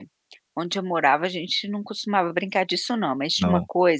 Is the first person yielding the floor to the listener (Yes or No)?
No